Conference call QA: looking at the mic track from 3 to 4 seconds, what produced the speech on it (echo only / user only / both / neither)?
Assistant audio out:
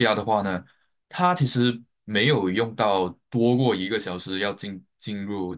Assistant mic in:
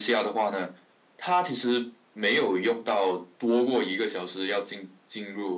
echo only